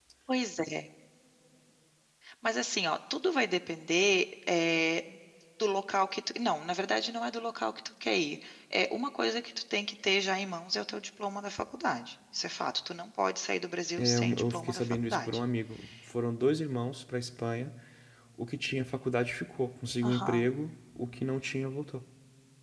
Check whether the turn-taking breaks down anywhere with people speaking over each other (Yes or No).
Yes